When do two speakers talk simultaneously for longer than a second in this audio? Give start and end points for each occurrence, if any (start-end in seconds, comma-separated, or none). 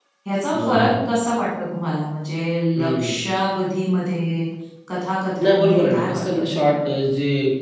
5.4-6.8